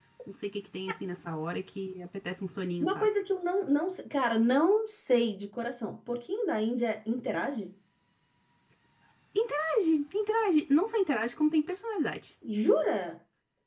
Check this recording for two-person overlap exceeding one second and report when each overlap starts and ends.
none

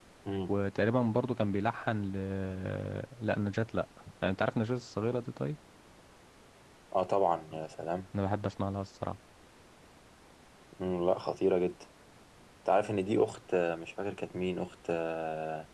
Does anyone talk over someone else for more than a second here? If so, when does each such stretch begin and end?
none

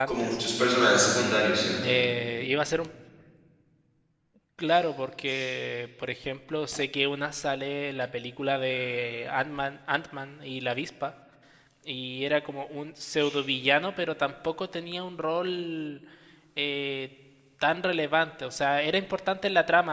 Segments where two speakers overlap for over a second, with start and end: none

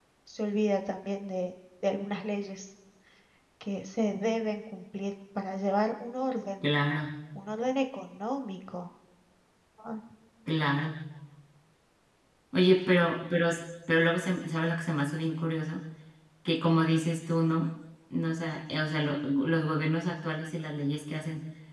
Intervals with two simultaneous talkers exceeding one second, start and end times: none

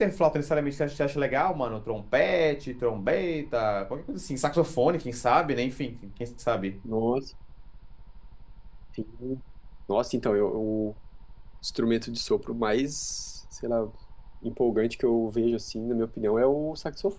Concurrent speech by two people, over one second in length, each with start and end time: none

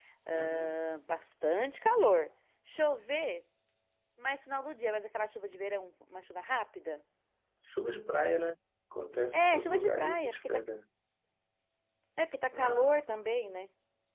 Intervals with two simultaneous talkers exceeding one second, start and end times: 9.3-10.6

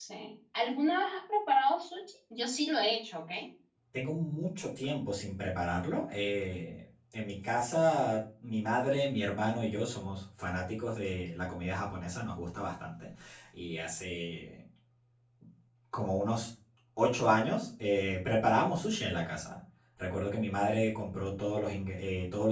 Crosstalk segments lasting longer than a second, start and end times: none

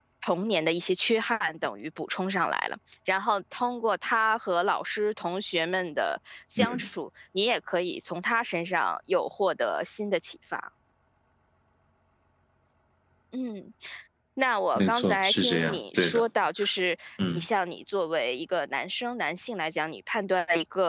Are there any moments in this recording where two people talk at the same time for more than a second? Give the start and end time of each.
14.8-16.3

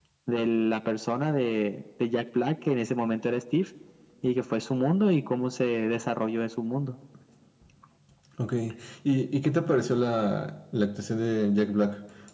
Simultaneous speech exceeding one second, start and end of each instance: none

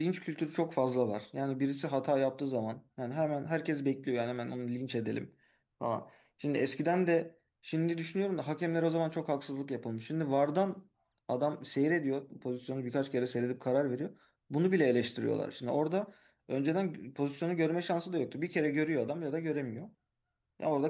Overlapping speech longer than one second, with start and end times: none

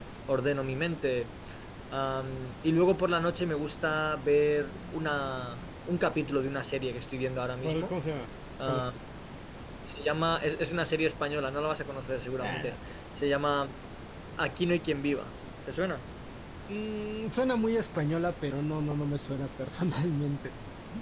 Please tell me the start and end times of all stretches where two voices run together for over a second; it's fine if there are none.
none

